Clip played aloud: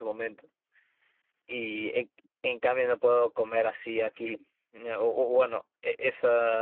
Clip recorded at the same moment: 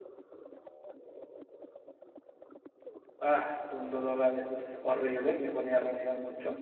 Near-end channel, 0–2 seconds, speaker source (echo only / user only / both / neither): neither